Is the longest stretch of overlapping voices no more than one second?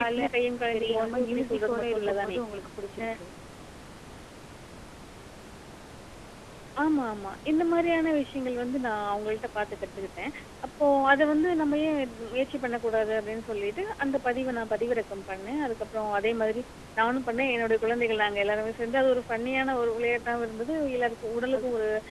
No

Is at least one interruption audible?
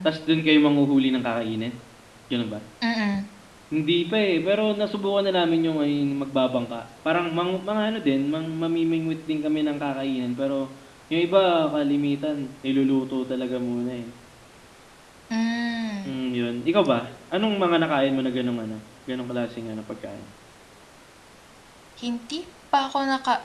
No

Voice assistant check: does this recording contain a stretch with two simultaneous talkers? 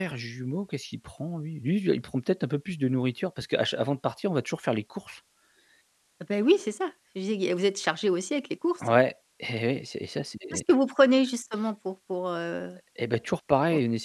No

